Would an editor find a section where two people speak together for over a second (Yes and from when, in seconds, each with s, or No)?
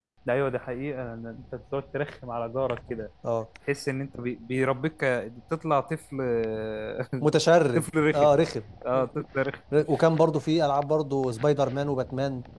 No